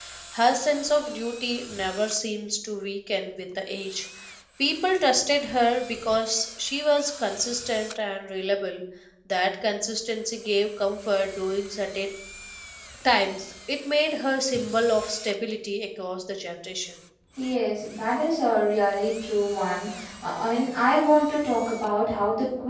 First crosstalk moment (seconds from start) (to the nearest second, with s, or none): none